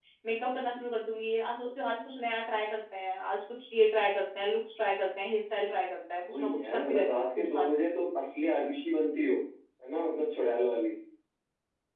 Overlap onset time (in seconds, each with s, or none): 6.2 s